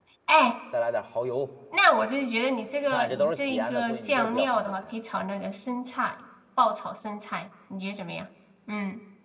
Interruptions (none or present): present